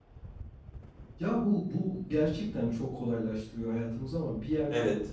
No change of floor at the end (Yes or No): Yes